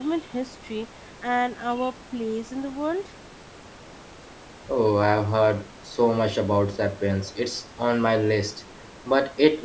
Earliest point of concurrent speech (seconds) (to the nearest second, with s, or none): none